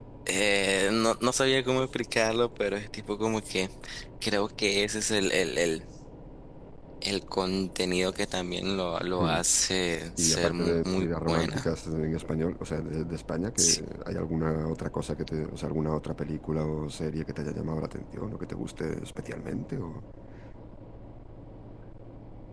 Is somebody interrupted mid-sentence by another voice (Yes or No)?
Yes